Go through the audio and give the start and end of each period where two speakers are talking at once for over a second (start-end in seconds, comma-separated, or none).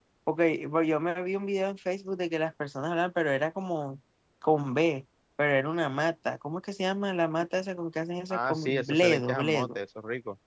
8.3-9.8